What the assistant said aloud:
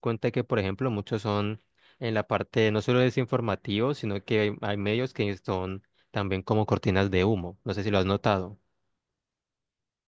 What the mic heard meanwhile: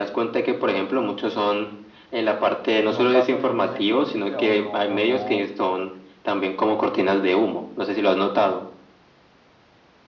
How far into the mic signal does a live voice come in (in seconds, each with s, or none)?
2.8 s